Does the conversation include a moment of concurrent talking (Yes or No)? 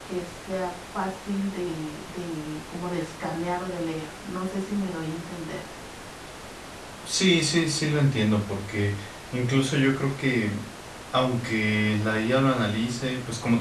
No